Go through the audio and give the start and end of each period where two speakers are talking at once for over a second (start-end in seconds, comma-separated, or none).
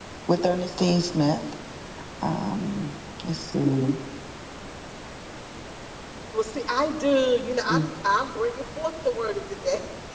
none